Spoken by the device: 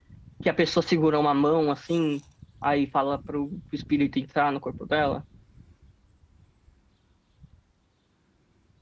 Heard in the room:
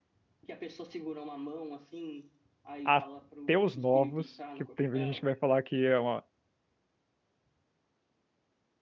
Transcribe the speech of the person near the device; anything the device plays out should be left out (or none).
Até os novos, que tem gente que vai falar que é um